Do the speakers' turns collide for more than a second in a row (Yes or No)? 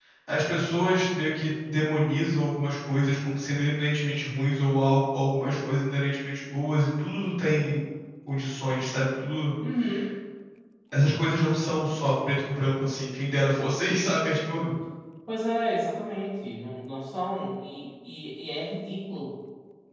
No